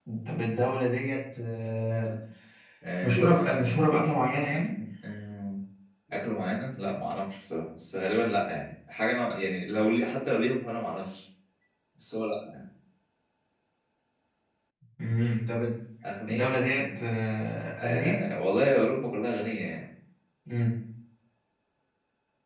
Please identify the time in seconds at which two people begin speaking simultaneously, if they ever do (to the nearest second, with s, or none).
3 s